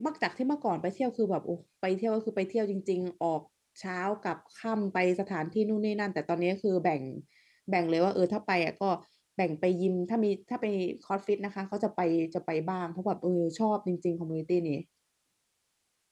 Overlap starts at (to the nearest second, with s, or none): none